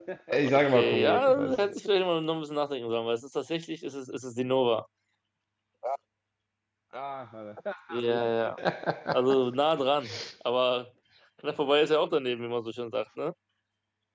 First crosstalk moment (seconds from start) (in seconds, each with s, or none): 0.5 s